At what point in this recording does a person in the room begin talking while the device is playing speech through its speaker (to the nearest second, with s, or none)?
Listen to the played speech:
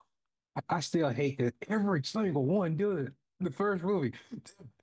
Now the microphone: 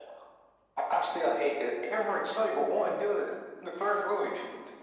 none